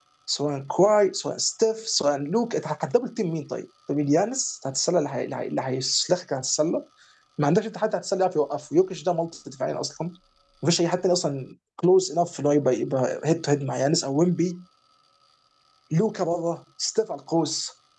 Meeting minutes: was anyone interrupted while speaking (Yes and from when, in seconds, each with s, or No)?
No